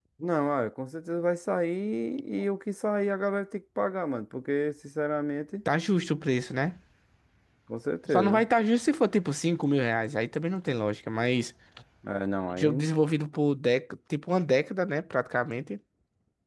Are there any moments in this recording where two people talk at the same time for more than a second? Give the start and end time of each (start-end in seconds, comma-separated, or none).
none